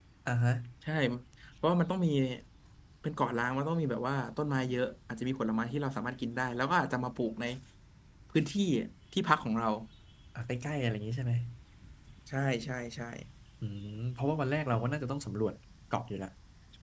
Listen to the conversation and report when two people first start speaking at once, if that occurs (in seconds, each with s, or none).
none